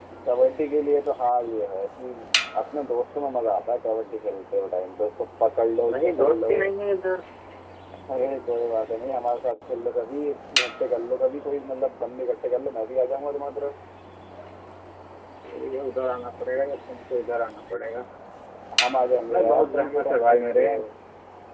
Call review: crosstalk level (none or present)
present